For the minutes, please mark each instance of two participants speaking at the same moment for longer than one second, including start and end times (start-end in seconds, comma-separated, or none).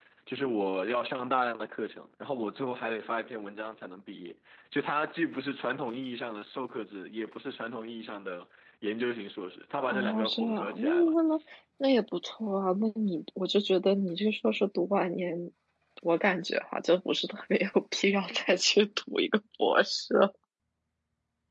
9.9-11.2